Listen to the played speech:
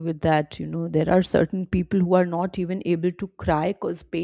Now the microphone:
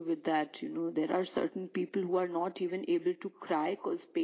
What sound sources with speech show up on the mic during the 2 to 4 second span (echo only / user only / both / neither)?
echo only